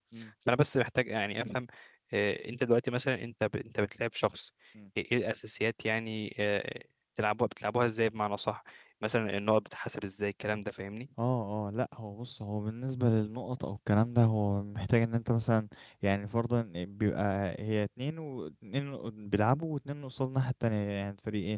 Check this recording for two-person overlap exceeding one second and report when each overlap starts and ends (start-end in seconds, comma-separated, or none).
none